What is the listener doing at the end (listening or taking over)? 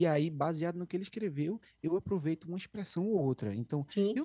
listening